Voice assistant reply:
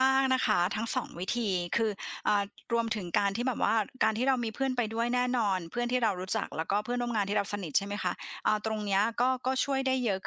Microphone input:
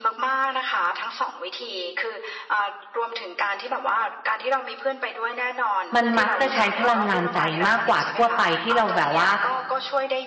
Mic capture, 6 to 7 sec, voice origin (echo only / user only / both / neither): both